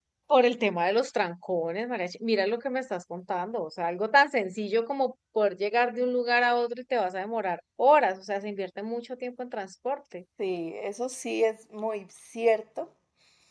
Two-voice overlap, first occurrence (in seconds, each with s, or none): none